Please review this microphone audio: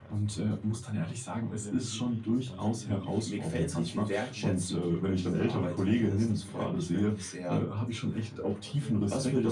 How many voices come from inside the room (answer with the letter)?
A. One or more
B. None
A